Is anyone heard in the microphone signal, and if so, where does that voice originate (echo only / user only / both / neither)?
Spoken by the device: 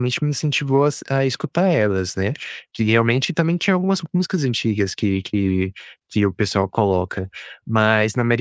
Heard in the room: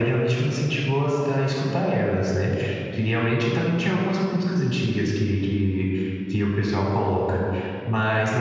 echo only